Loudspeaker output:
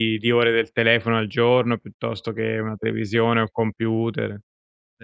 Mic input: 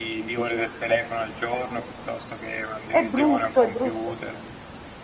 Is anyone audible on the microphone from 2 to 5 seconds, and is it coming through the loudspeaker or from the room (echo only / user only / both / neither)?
both